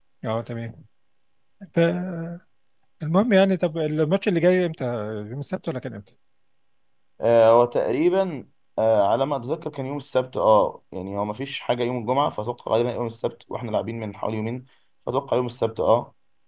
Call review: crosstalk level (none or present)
none